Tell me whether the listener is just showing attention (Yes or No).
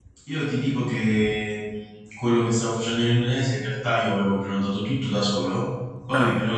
Yes